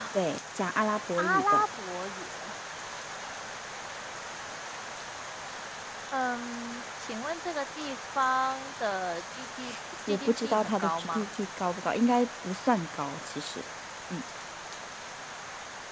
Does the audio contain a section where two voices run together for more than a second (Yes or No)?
Yes